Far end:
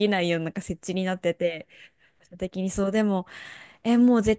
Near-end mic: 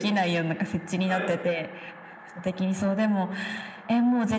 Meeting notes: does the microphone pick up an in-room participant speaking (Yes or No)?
Yes